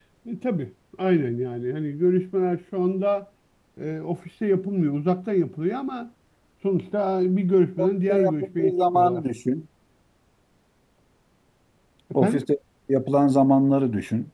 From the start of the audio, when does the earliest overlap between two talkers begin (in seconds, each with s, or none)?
7.8 s